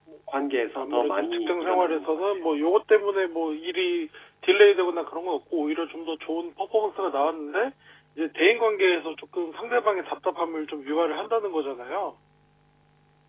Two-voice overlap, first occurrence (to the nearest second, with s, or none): 1 s